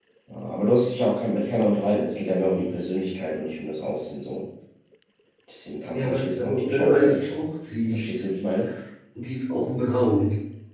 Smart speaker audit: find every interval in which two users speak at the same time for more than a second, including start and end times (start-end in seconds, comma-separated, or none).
5.9-7.3